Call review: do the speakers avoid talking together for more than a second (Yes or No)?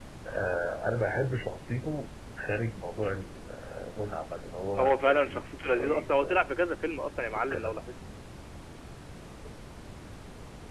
No